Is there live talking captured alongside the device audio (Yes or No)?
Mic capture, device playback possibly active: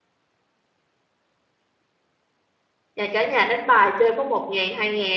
Yes